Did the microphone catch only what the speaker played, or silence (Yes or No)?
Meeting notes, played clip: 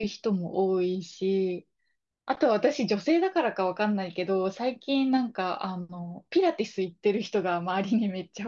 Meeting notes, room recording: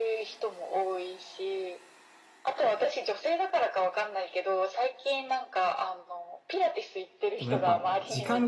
No